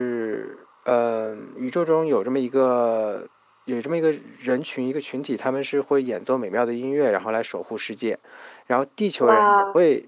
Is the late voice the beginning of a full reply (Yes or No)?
No